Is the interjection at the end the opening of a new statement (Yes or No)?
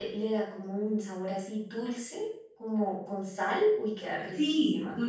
Yes